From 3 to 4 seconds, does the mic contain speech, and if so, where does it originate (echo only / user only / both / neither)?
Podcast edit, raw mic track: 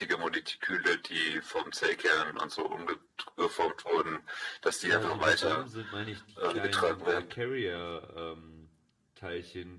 echo only